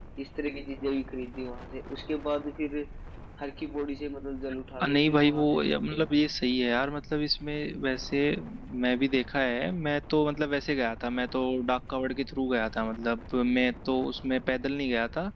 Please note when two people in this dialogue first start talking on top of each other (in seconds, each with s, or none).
4.8 s